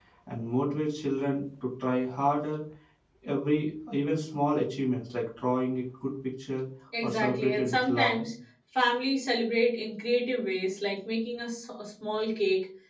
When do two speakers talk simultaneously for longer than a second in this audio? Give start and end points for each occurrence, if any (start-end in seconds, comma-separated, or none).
7.0-8.2